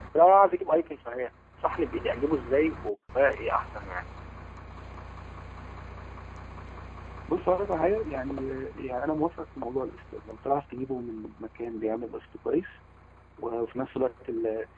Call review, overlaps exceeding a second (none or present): none